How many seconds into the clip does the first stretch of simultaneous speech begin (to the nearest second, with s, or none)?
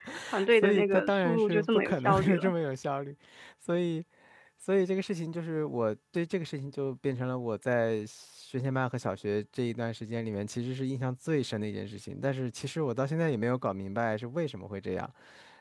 1 s